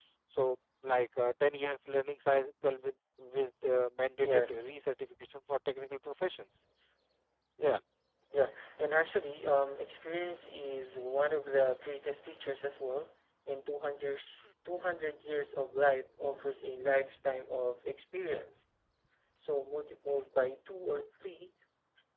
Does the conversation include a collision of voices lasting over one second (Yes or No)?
No